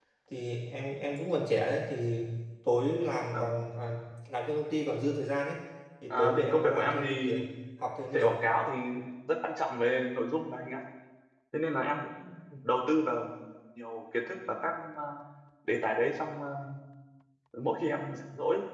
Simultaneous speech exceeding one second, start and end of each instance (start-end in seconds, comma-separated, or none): 6.1-7.4